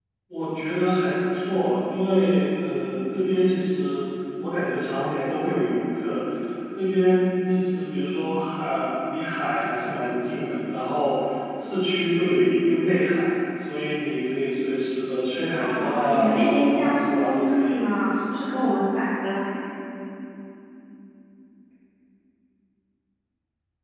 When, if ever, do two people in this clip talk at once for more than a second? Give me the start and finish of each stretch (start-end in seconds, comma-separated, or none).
15.6-17.7